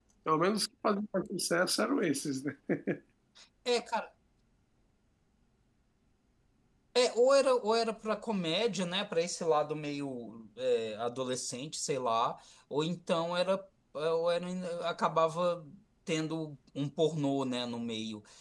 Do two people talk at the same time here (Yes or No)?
No